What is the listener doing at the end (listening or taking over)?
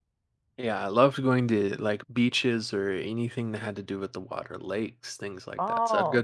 listening